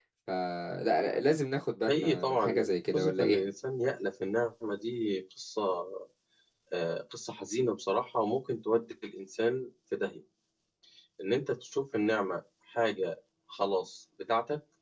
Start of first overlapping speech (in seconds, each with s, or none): 1.9 s